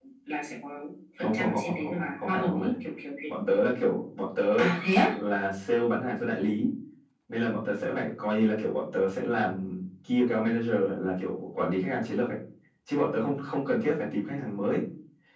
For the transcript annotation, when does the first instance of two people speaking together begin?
1.2 s

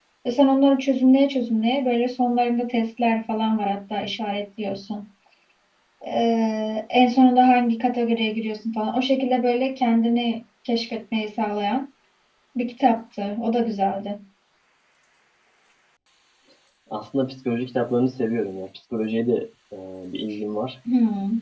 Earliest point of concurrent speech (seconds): none

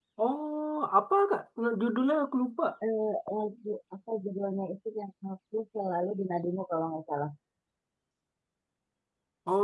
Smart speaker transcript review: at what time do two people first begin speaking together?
none

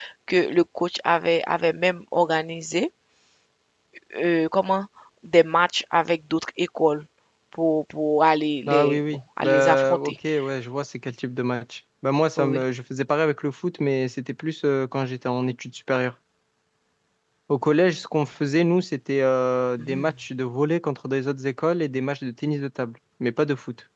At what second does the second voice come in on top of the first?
8.7 s

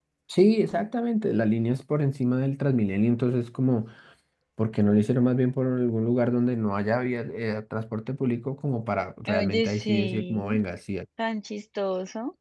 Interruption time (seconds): 9.3 s

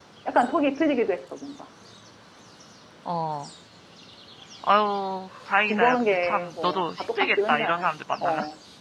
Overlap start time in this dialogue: 5.7 s

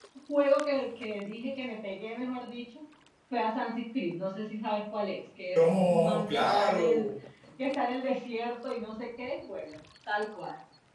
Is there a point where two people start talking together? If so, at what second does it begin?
5.5 s

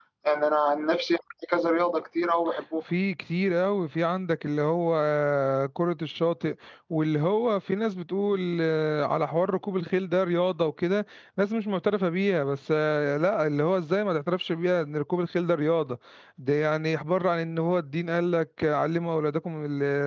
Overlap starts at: none

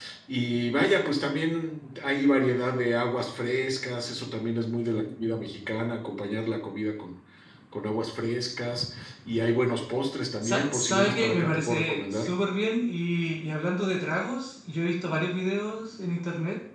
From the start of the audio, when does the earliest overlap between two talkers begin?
10.4 s

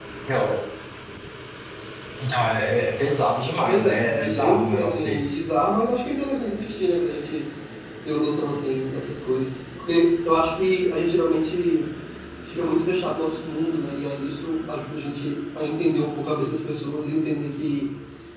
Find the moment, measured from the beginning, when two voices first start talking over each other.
3.7 s

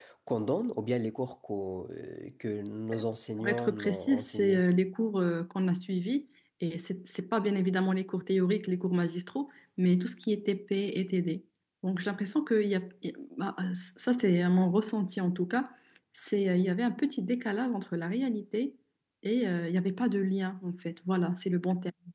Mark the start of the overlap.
3.4 s

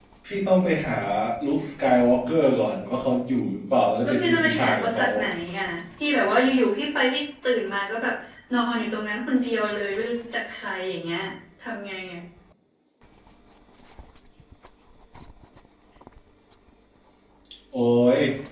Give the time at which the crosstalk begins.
4.0 s

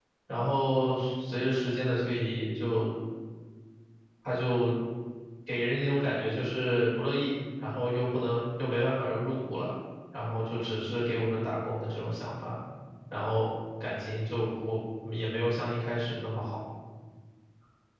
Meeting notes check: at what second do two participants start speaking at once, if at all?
none

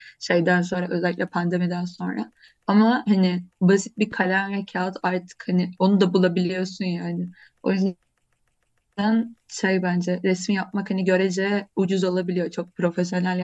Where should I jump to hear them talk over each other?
none

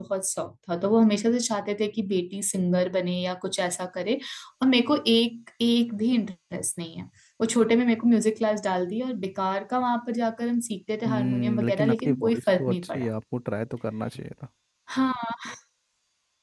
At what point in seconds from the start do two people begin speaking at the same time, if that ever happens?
11.1 s

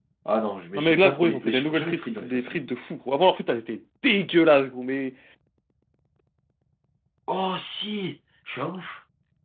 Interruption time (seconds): 0.7 s

